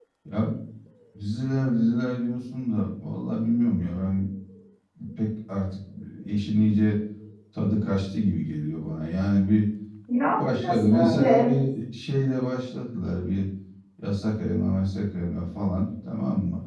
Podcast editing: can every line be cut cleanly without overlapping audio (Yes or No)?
No